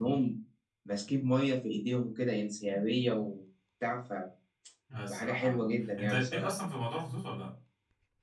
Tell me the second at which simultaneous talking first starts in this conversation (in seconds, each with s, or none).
5.1 s